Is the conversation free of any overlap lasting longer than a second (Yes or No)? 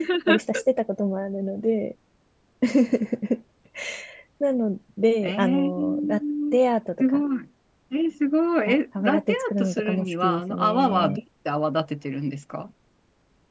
No